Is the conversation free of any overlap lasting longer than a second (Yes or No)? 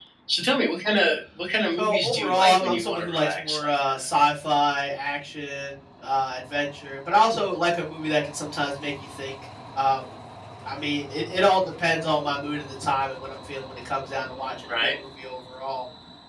No